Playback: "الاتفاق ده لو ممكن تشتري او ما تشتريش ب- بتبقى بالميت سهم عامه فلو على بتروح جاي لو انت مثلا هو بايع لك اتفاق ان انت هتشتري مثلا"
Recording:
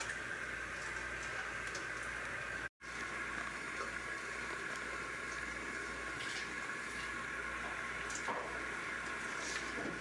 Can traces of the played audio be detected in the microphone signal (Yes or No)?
No